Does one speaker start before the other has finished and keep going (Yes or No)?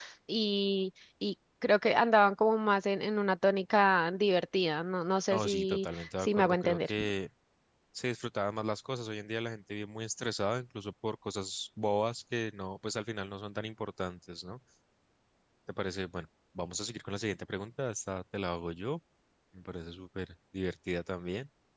Yes